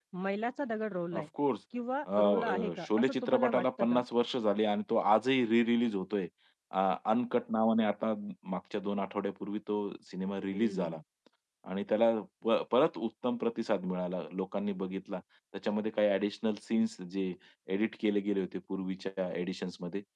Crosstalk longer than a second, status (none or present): present